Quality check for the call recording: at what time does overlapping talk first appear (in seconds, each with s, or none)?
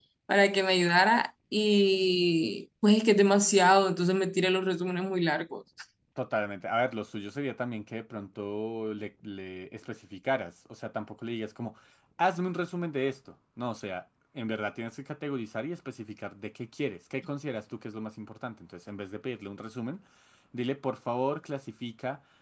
none